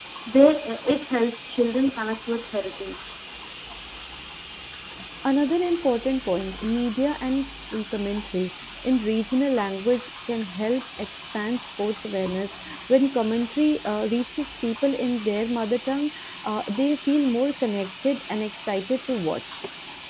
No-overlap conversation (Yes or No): Yes